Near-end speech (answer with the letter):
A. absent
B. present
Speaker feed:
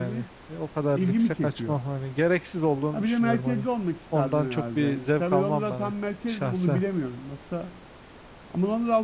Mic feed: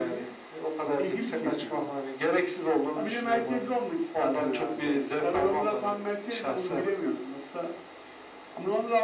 A